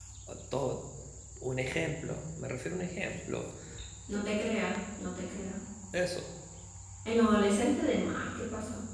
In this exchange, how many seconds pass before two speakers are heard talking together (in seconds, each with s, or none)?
none